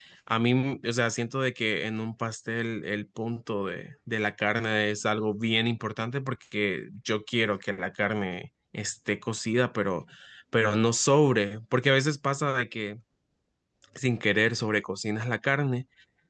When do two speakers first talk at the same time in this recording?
none

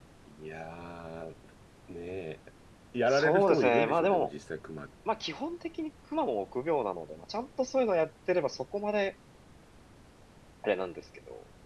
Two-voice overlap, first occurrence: 3.1 s

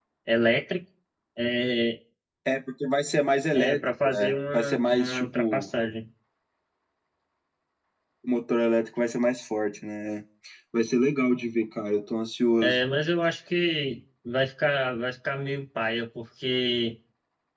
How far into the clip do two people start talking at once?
3.5 s

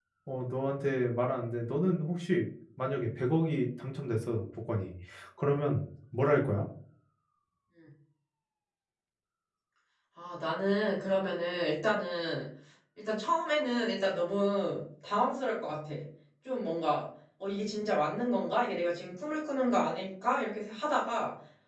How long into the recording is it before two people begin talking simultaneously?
none

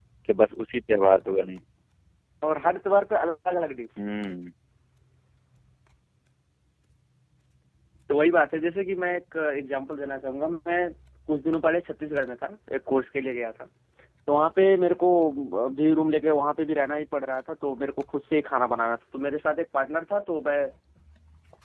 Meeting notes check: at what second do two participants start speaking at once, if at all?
none

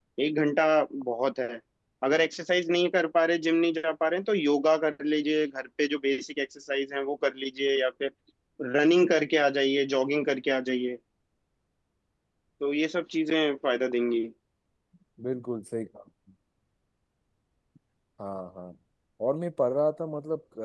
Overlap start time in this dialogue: none

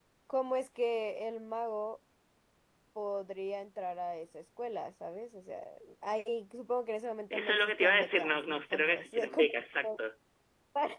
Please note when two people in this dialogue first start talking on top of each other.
7.3 s

